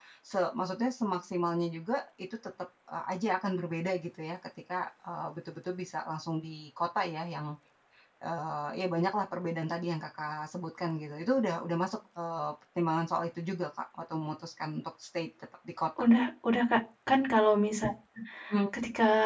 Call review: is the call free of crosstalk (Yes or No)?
Yes